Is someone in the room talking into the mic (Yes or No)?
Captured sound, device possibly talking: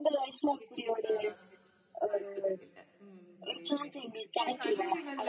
Yes